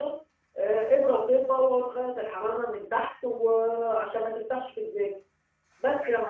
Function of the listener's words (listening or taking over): taking over